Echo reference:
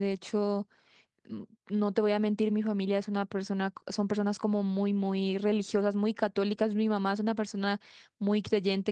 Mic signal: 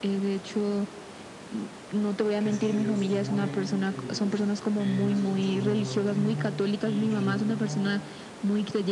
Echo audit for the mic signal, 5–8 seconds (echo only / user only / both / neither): both